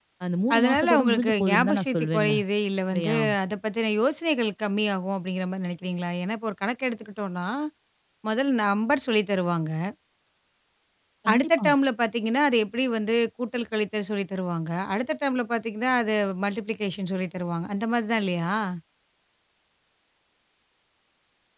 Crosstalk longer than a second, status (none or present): present